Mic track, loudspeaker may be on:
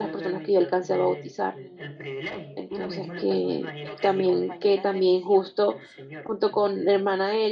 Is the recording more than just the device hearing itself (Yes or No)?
Yes